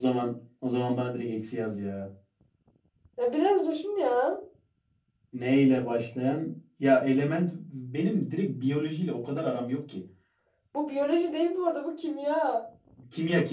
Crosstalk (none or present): none